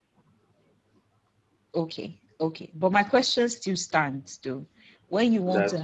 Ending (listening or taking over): listening